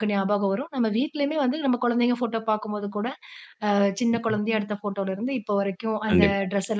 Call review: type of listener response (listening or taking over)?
listening